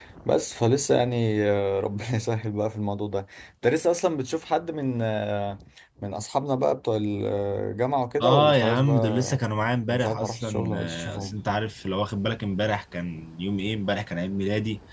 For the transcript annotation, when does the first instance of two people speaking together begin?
8 s

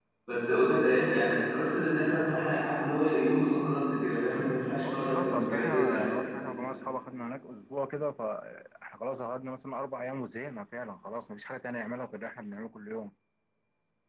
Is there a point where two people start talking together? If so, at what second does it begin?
5 s

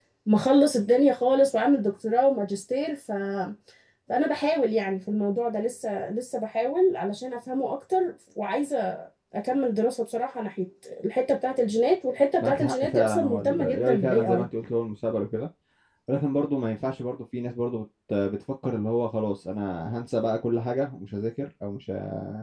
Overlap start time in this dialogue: 12 s

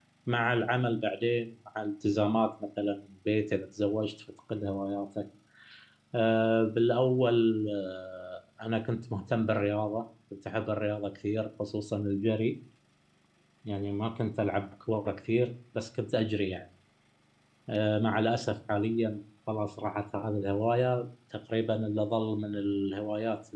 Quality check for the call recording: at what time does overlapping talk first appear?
none

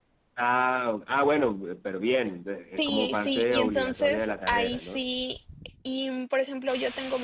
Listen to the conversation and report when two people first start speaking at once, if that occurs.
3 s

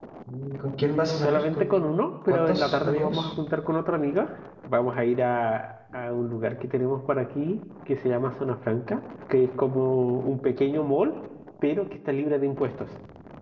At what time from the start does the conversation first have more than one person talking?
1 s

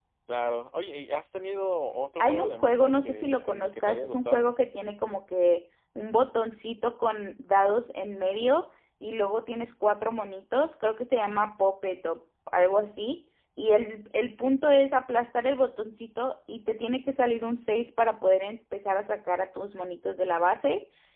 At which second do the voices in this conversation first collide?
2 s

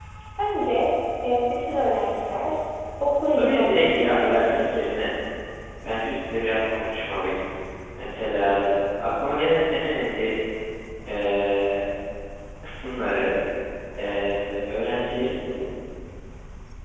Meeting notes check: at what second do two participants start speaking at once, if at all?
3 s

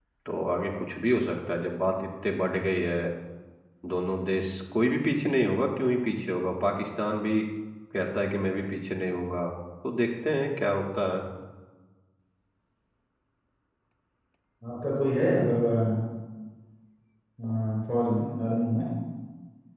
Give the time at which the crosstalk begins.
none

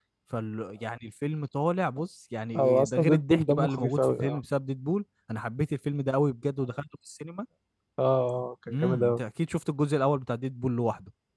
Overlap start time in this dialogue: 3 s

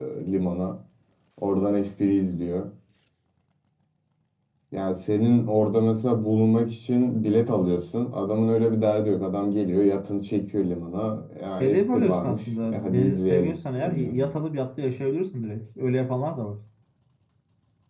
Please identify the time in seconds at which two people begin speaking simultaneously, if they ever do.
12 s

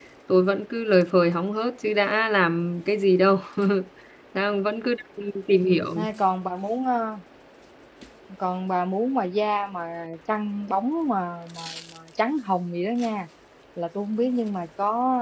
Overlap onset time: none

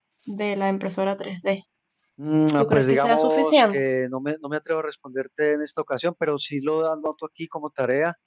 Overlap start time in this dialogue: 3 s

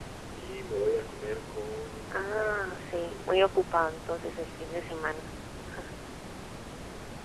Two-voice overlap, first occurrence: 2 s

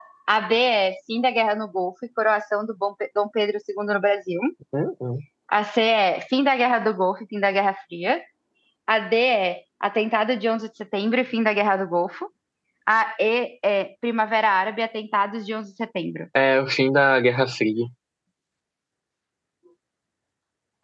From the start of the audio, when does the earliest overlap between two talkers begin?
none

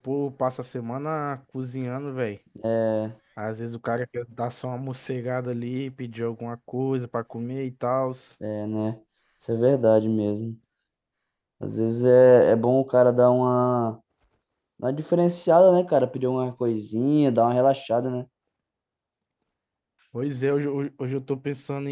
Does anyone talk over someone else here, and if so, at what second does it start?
none

